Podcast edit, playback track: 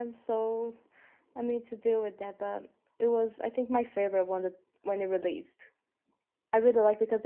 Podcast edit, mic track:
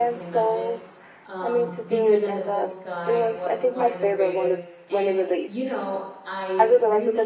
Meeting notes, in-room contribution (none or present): present